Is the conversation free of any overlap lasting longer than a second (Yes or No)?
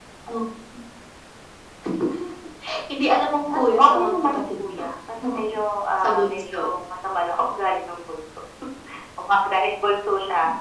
No